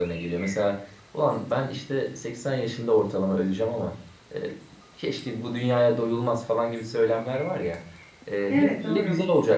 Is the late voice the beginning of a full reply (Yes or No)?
No